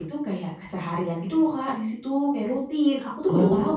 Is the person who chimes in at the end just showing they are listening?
No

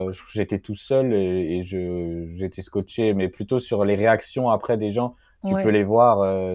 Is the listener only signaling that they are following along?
Yes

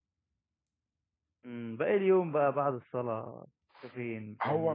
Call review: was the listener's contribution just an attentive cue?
No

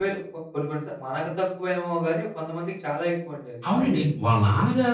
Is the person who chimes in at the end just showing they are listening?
No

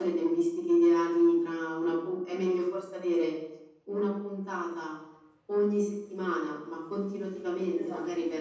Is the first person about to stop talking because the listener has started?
No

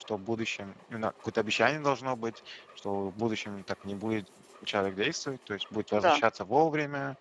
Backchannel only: Yes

